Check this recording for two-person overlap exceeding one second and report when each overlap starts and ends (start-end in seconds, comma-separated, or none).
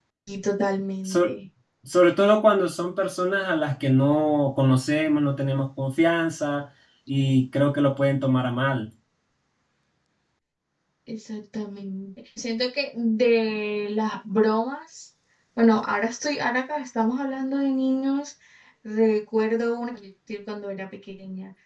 none